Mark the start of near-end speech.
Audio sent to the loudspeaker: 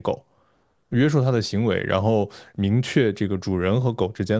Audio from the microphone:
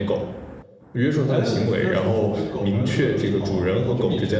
1.3 s

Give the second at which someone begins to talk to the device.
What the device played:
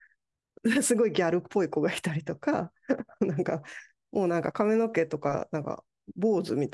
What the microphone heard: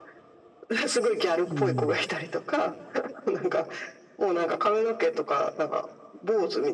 1.5 s

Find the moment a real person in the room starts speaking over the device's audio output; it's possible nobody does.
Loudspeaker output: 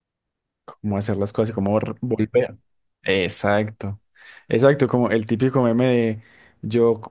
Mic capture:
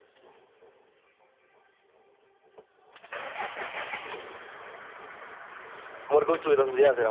6.0 s

